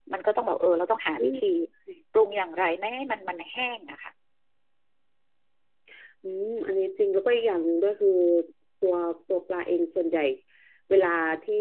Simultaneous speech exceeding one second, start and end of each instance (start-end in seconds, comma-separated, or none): none